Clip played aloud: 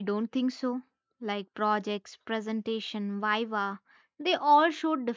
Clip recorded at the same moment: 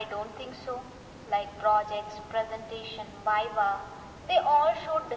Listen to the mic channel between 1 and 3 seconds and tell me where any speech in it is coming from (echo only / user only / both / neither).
echo only